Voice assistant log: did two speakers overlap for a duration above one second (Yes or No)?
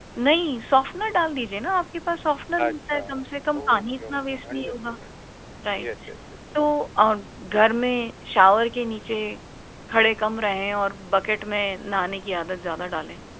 Yes